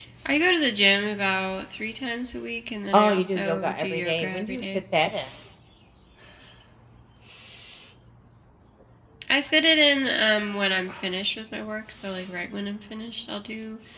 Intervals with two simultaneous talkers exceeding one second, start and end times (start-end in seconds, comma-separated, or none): 2.9-4.6